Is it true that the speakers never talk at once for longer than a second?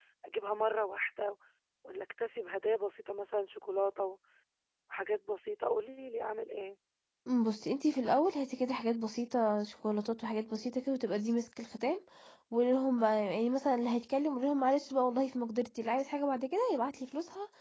Yes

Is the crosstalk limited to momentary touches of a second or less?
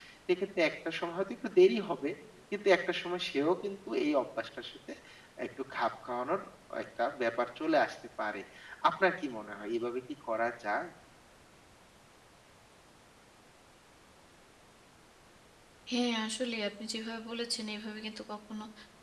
Yes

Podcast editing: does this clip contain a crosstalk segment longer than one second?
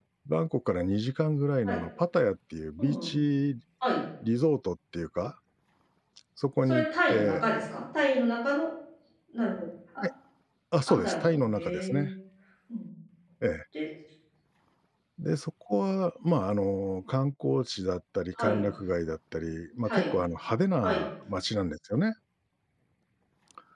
Yes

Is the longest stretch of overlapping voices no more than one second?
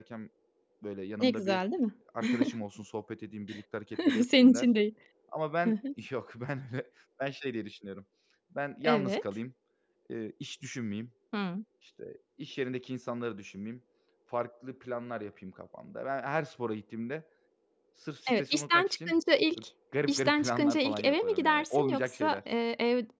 No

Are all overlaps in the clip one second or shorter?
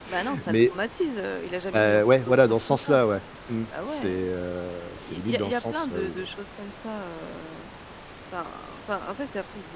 No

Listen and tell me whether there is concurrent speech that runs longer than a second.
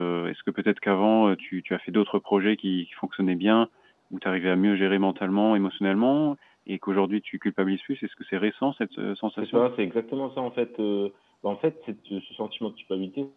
No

